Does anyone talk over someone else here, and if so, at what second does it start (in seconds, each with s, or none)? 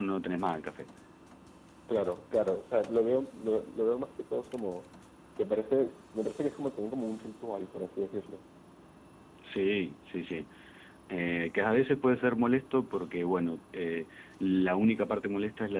none